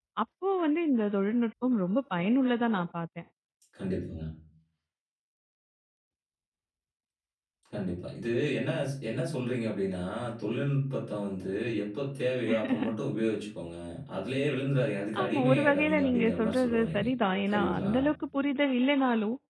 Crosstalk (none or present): present